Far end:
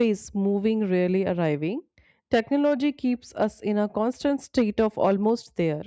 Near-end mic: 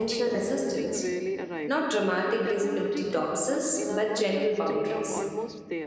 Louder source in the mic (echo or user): user